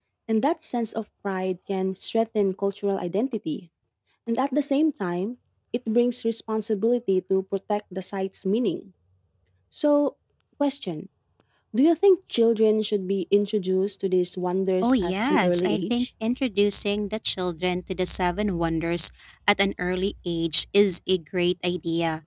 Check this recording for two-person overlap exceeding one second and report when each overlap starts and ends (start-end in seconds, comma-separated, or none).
14.8-16.1